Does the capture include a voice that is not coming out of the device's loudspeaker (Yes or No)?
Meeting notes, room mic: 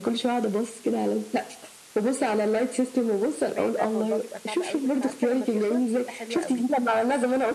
Yes